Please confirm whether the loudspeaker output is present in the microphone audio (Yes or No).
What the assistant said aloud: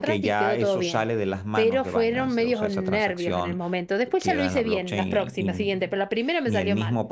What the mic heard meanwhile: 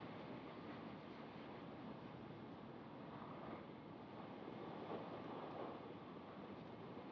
No